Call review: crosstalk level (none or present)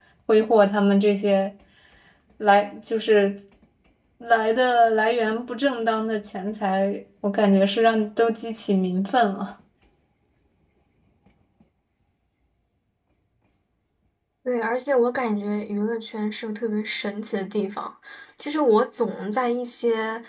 none